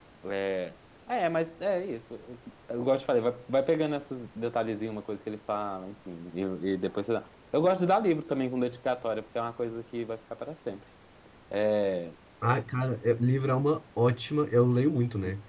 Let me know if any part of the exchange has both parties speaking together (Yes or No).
No